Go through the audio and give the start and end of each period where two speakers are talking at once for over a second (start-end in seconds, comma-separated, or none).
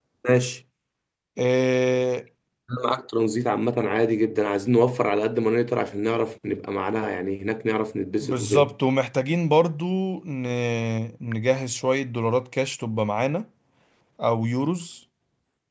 none